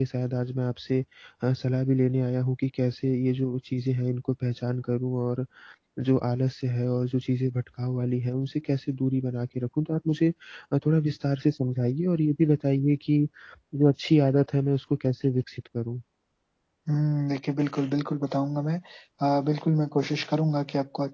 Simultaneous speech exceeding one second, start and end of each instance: none

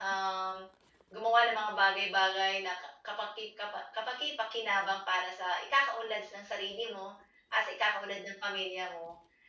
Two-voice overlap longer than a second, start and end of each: none

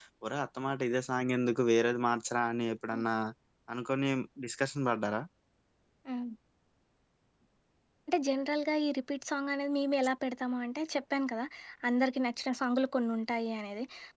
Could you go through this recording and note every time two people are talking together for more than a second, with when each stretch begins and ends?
none

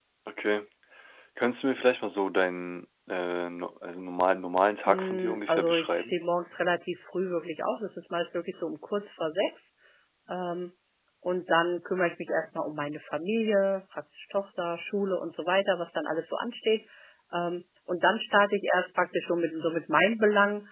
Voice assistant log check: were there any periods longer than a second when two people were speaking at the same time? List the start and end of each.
4.9-6.2

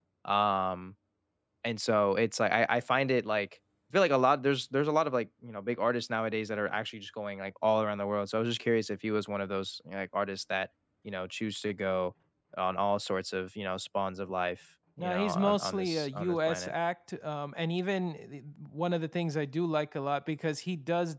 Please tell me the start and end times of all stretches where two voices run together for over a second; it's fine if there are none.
15.0-16.7

